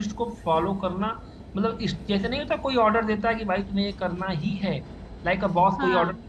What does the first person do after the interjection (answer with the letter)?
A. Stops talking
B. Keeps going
B